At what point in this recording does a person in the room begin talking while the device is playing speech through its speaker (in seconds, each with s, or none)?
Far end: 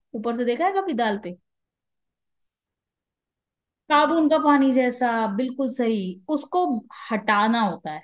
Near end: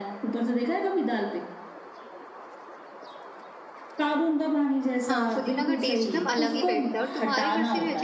5.1 s